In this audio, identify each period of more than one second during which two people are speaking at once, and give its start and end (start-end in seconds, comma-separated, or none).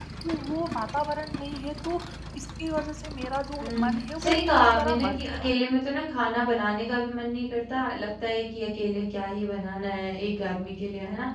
3.6-5.6